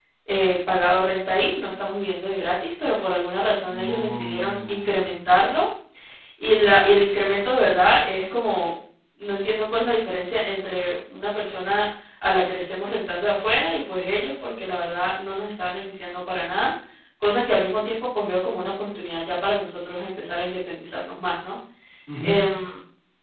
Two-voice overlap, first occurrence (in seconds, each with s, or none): 3.7 s